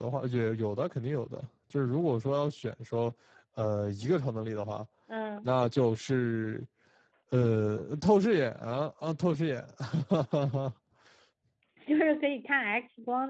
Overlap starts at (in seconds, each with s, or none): none